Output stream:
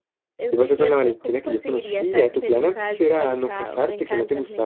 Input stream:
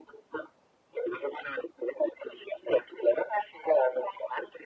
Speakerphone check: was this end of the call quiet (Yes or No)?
Yes